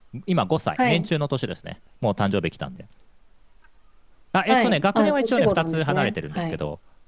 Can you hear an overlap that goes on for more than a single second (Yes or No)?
Yes